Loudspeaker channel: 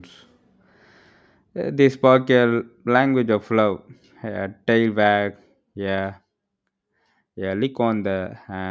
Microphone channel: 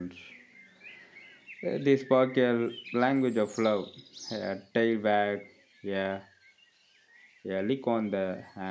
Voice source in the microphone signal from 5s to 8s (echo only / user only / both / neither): echo only